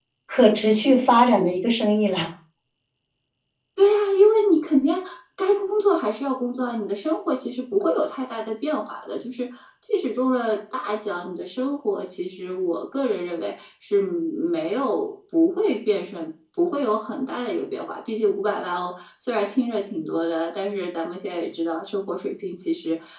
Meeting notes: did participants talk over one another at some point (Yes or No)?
No